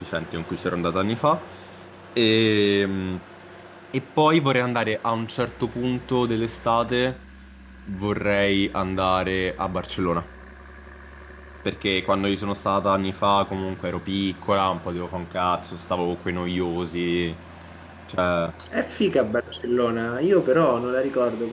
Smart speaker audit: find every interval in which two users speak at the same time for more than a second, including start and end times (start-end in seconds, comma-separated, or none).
none